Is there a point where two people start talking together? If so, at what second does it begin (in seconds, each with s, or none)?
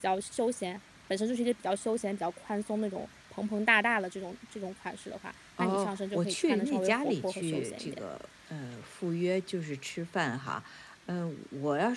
5.6 s